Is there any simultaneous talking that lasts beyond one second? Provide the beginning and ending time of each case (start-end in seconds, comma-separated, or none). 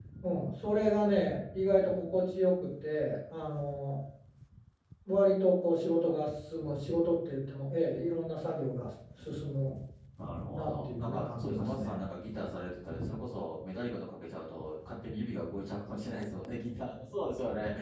10.6-12.0